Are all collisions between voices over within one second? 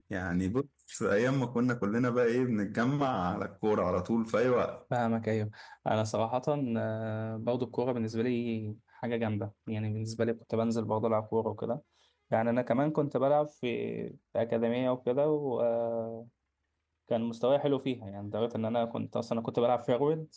Yes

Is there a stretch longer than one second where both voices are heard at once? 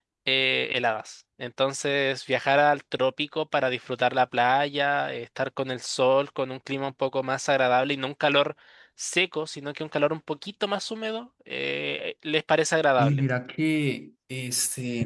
No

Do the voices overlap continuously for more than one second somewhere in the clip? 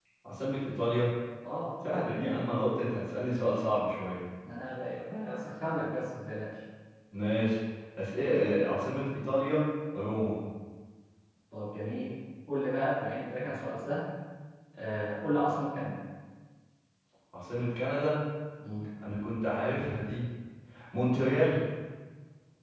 No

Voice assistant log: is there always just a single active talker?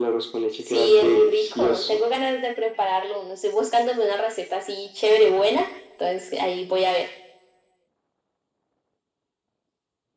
No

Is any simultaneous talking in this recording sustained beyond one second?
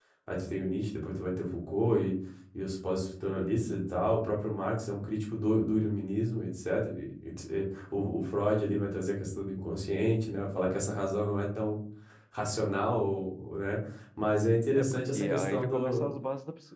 Yes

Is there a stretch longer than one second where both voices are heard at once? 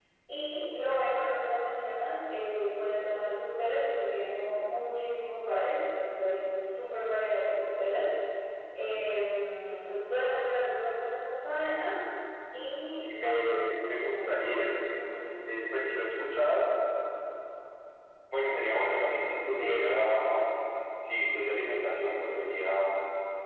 Yes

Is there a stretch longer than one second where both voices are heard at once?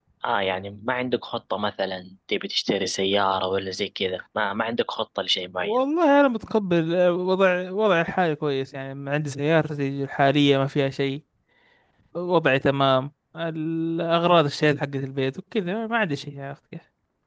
No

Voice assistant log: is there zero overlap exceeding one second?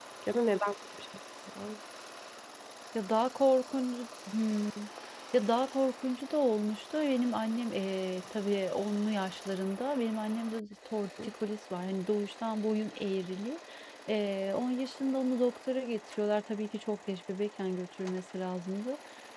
Yes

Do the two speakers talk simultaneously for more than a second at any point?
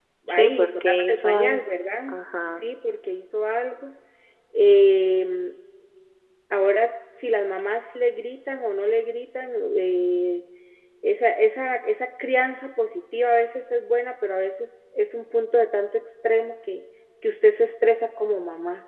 Yes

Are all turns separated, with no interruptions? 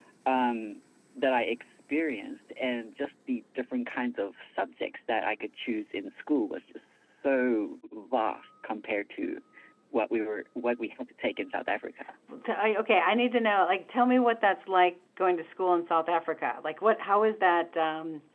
Yes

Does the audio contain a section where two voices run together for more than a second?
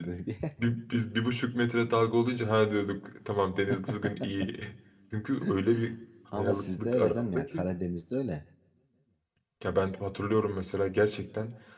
Yes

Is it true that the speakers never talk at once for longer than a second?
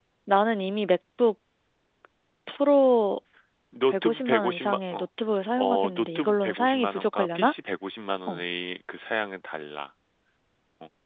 No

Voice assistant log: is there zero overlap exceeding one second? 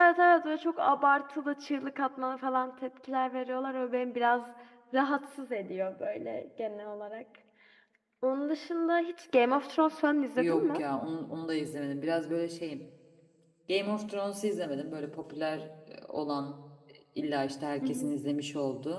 Yes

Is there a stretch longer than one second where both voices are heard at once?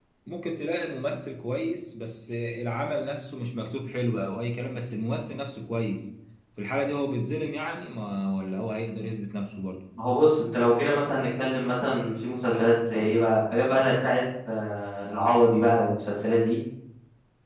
No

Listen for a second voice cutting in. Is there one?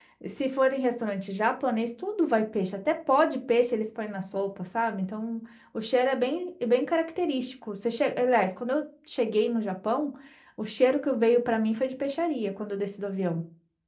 No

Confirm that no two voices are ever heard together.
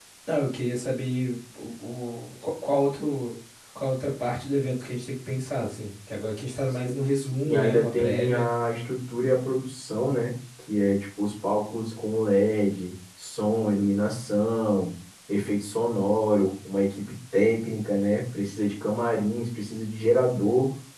No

